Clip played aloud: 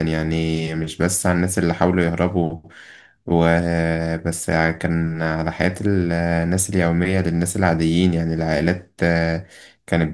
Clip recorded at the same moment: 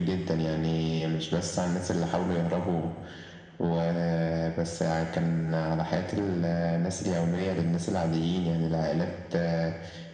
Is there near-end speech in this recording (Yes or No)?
No